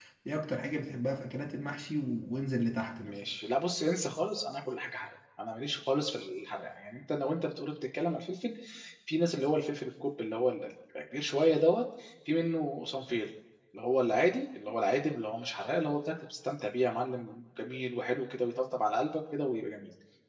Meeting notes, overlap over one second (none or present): none